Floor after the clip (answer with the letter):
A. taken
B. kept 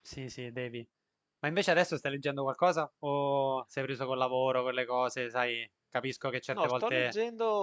A